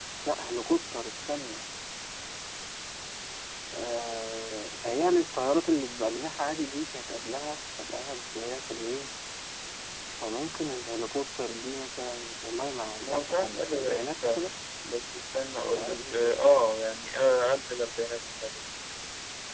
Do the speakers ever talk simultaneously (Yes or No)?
Yes